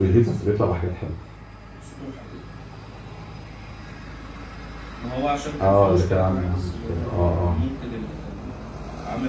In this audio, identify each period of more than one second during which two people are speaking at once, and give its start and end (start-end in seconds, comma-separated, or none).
5.6-7.6